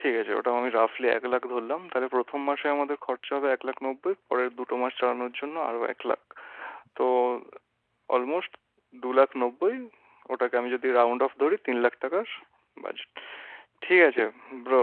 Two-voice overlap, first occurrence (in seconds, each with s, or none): none